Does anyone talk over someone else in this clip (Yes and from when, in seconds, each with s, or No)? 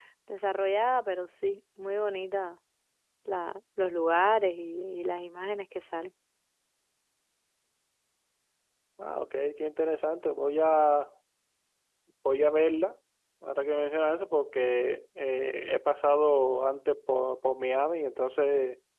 No